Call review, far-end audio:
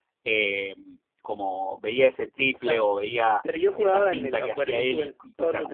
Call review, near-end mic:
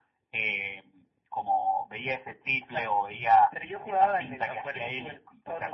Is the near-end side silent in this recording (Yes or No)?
Yes